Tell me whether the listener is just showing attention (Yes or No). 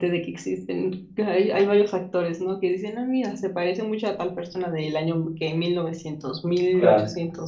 Yes